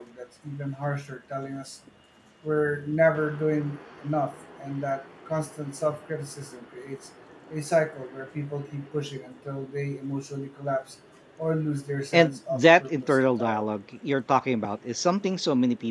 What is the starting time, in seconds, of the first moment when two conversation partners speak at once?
12.1 s

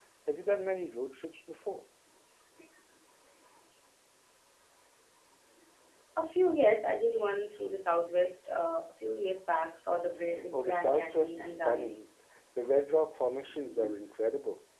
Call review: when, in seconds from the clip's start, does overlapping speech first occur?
10.5 s

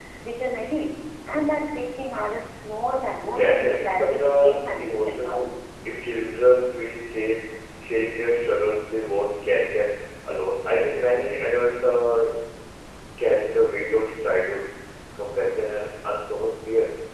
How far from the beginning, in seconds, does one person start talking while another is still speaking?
3.3 s

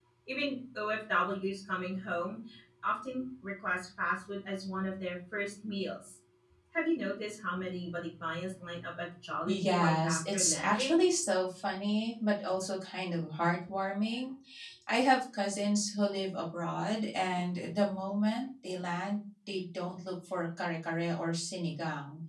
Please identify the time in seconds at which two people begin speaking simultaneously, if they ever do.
9.5 s

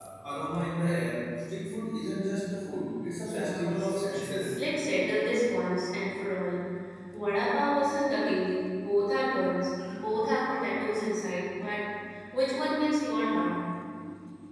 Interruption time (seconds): 3.2 s

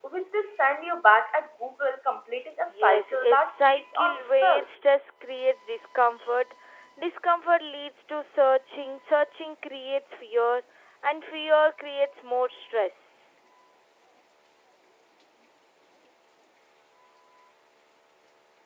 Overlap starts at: 2.7 s

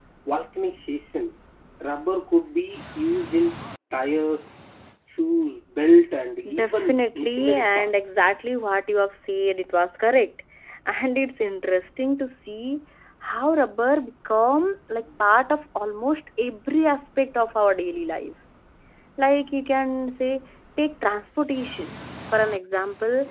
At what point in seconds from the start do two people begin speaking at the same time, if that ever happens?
6.5 s

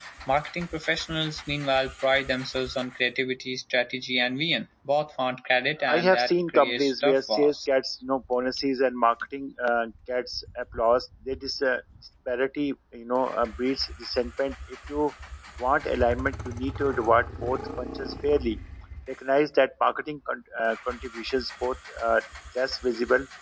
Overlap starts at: 5.8 s

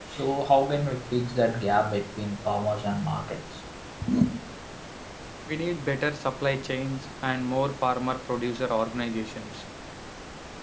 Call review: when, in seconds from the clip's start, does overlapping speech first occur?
none

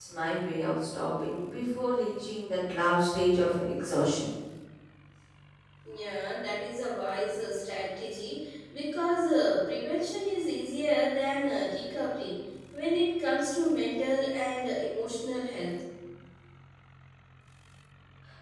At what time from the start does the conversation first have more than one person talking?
none

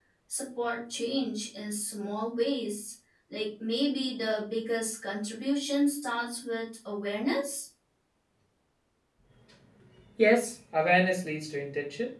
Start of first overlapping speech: none

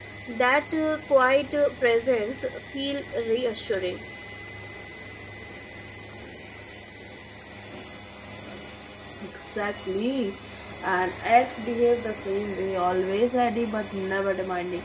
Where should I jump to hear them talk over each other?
none

